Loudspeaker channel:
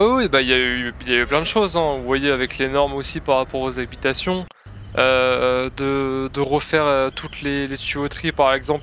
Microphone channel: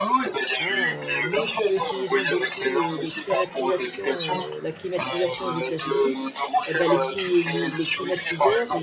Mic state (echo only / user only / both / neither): both